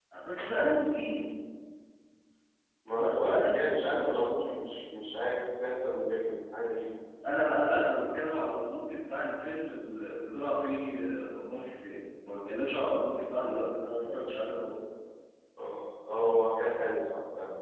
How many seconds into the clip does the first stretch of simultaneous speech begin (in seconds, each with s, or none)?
3.0 s